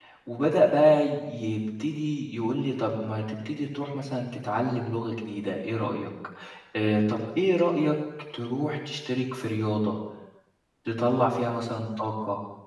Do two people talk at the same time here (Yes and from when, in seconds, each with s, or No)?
No